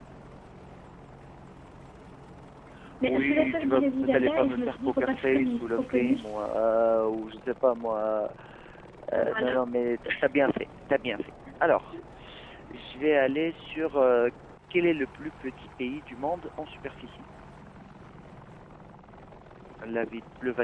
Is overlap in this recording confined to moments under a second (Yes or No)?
No